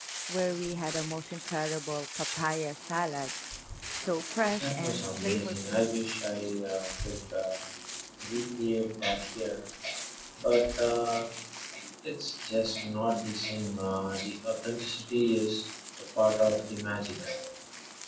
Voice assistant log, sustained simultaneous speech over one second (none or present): present